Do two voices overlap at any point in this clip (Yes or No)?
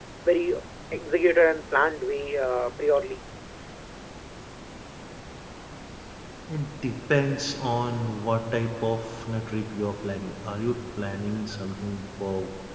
No